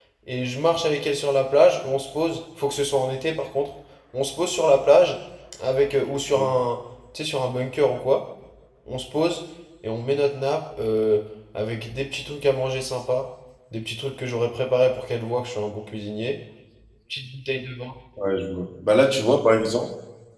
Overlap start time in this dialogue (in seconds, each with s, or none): none